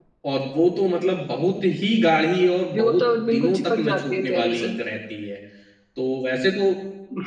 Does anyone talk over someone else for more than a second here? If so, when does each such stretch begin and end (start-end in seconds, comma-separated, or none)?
2.7-4.8